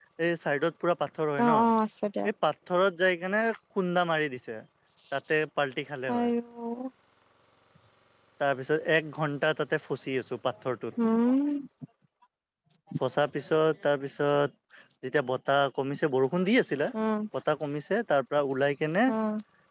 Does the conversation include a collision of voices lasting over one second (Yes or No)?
No